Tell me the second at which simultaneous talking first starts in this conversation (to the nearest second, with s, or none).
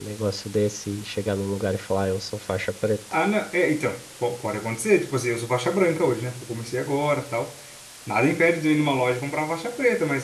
none